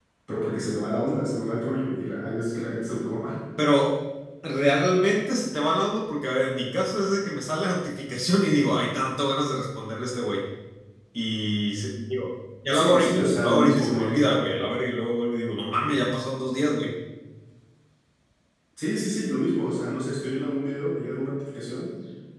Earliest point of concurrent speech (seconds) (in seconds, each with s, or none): 12.7 s